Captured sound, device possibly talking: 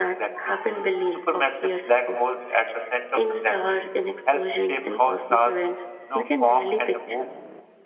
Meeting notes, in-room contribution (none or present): none